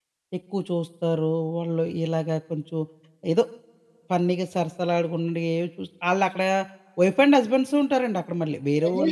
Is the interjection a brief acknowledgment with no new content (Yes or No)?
No